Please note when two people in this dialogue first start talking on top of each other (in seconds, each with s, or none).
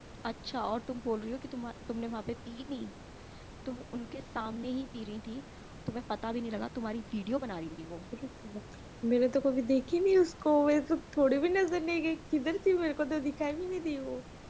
none